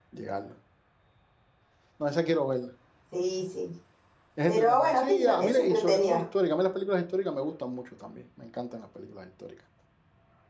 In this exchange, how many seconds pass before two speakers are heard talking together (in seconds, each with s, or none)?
4.5 s